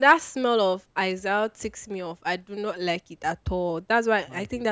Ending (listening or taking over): listening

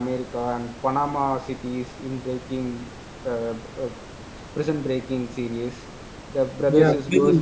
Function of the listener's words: taking over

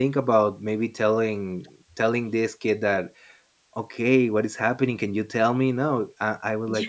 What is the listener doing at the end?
listening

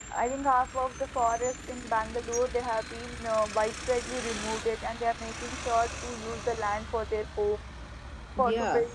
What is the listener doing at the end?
taking over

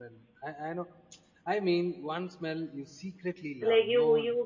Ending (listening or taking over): taking over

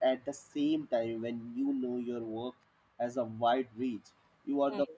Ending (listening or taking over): listening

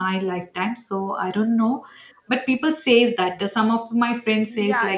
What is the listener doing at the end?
taking over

